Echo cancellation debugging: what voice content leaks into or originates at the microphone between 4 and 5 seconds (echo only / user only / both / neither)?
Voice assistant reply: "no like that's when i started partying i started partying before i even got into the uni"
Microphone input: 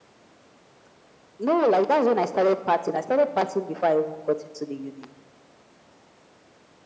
echo only